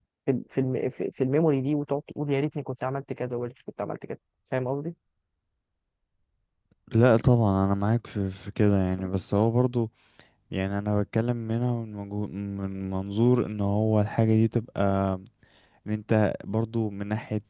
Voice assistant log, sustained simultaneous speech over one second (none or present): none